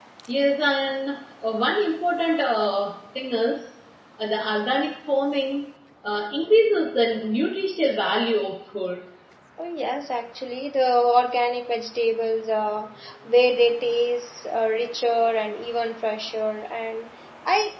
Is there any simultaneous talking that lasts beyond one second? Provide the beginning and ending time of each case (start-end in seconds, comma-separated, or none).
none